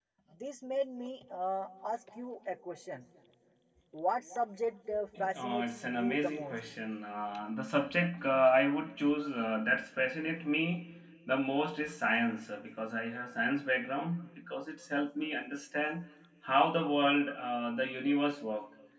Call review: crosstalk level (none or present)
present